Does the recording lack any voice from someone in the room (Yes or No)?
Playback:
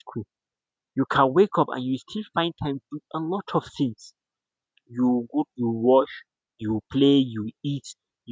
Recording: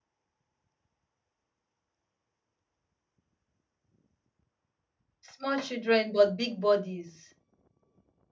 No